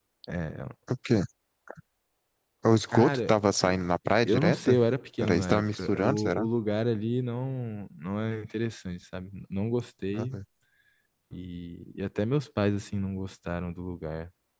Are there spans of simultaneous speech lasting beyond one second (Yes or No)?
Yes